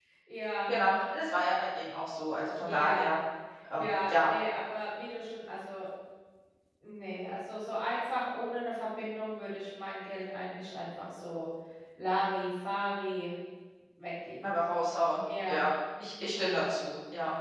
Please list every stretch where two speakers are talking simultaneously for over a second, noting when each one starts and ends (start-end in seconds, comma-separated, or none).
none